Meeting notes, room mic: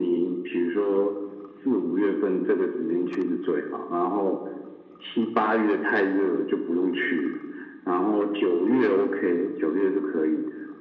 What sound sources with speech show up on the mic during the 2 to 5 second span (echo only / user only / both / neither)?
echo only